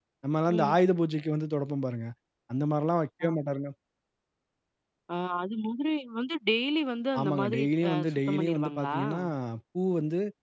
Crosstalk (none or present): present